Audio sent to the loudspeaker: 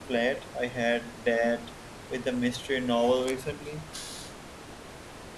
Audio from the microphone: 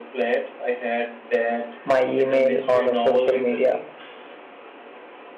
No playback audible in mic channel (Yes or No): No